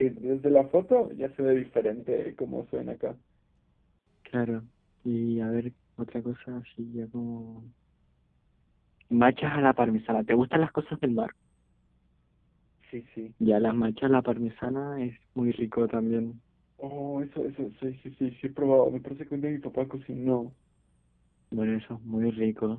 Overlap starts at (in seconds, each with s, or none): none